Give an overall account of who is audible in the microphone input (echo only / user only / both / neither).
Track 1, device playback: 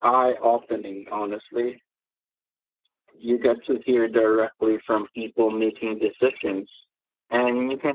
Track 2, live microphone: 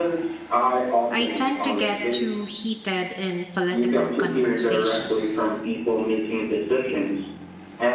both